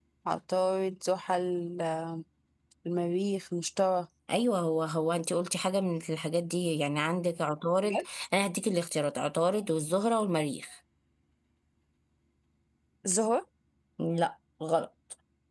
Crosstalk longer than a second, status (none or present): none